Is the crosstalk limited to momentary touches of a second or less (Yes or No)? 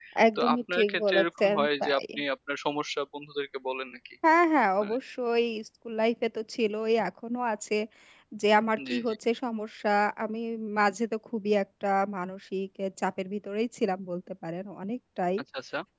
No